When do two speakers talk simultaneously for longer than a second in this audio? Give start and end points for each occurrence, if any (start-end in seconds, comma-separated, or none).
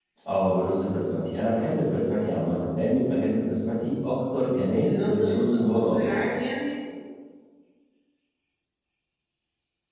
4.8-6.1